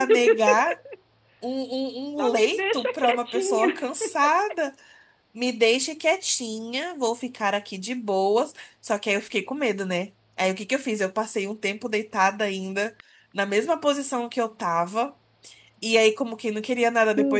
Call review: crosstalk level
present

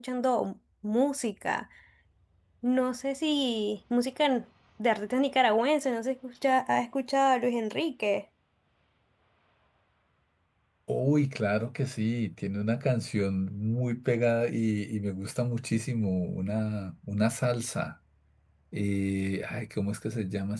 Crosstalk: none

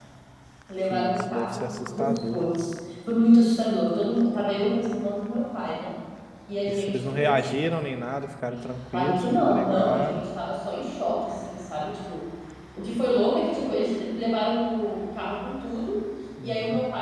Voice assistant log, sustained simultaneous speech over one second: present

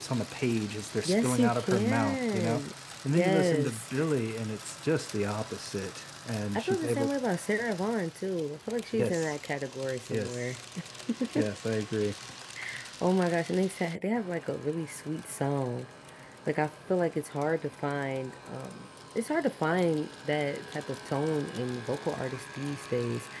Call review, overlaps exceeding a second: present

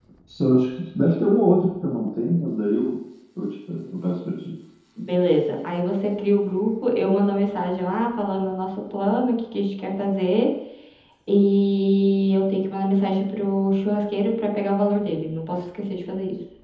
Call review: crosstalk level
none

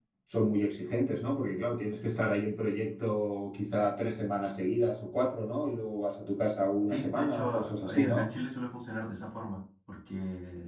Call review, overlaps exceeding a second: present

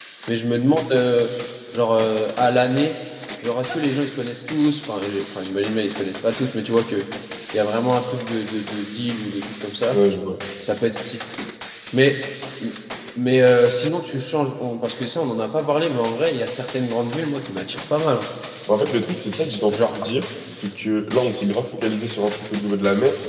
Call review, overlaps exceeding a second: none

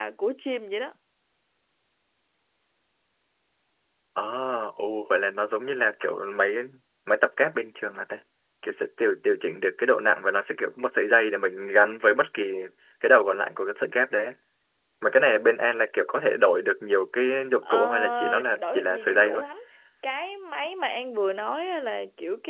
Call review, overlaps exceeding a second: present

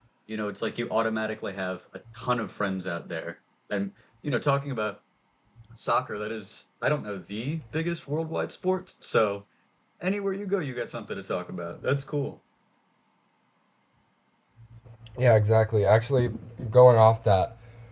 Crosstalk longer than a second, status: none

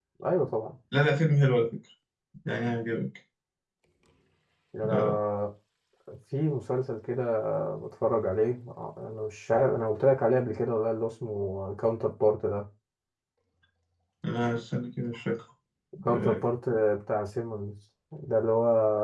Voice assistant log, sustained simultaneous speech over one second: none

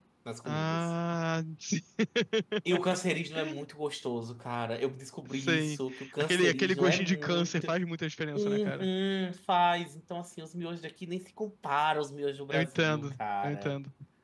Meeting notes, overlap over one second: present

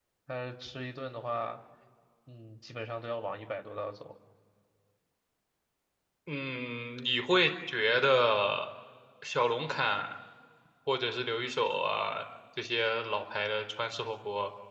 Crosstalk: none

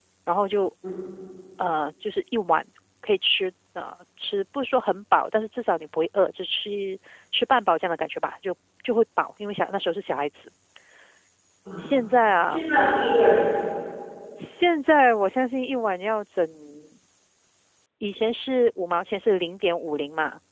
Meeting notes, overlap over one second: none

